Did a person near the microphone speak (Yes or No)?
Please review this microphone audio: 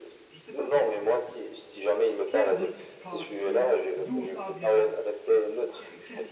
Yes